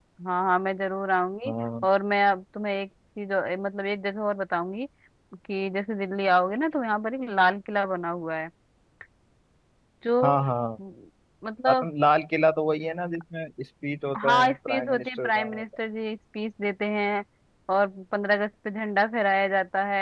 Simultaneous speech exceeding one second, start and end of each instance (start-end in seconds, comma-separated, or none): 14.3-15.6